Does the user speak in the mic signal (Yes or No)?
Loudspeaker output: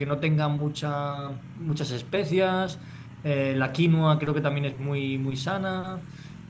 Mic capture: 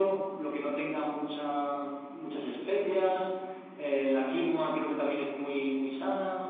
No